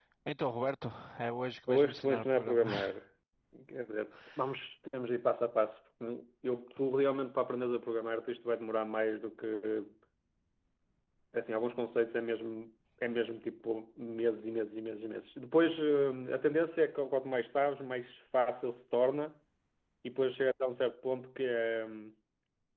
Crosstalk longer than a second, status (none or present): present